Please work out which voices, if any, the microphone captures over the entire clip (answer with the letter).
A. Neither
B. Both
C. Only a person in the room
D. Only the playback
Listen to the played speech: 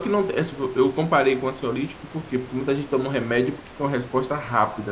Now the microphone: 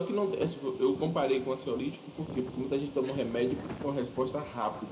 D